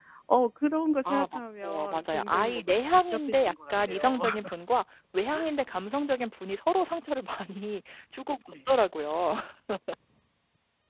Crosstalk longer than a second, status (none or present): present